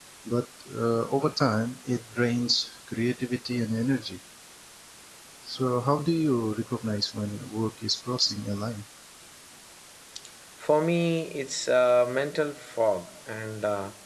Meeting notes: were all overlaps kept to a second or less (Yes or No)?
Yes